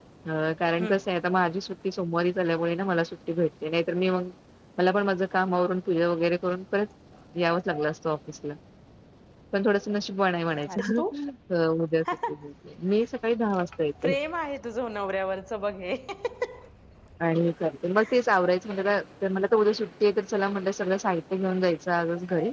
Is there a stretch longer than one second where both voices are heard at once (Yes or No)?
No